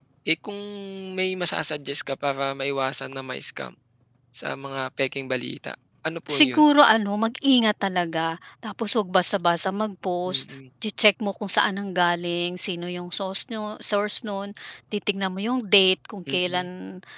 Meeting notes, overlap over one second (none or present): none